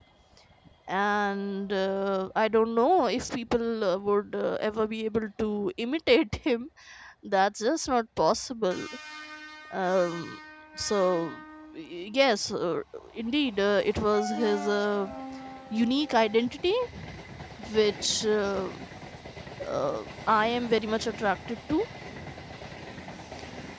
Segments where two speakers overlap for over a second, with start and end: none

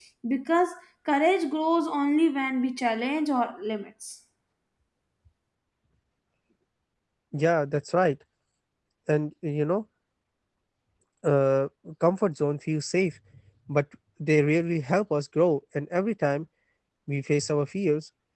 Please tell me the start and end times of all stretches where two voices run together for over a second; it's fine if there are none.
none

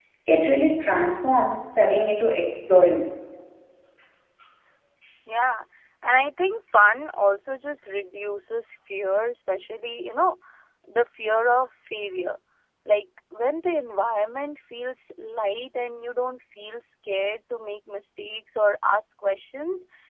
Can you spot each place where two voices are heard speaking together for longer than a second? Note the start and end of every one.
none

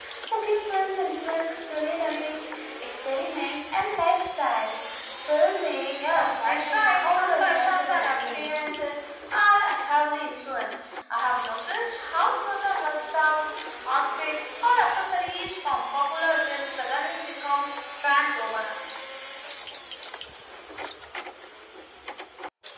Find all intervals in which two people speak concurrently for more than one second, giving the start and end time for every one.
6.1-8.6

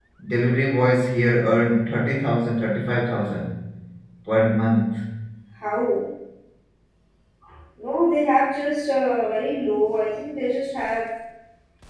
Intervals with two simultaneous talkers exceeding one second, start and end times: none

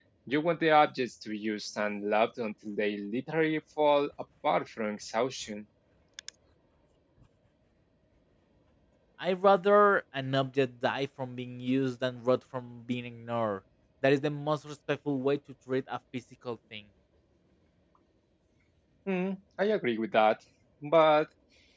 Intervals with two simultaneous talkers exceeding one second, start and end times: none

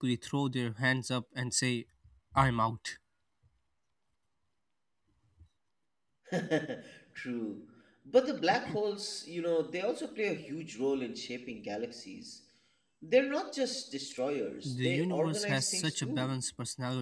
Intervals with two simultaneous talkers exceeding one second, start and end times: 14.6-16.3

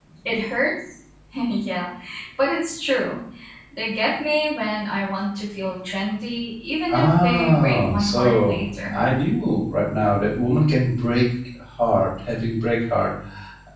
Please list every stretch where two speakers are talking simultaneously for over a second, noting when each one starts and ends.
6.9-9.0

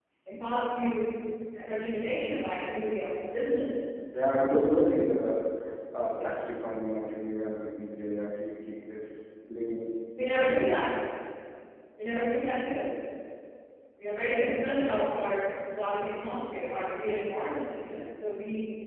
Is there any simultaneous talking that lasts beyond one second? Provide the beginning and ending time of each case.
none

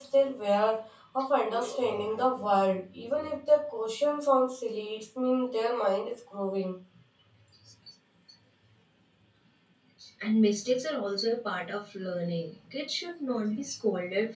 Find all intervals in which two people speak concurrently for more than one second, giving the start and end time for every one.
none

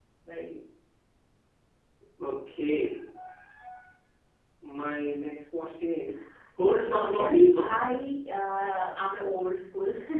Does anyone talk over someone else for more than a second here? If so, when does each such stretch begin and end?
6.7-7.9

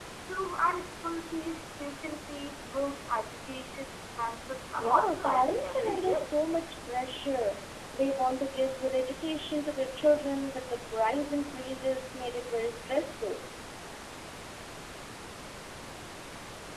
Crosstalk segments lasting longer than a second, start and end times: 4.8-6.3

